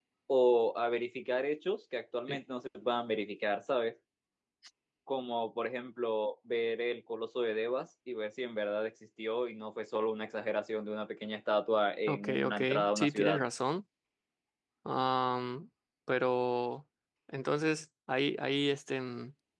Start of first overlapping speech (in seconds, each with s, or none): 12.1 s